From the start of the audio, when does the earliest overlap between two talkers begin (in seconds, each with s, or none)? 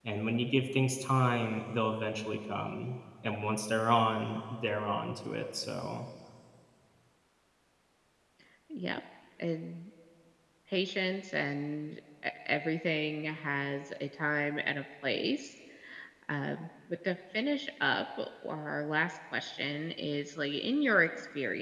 none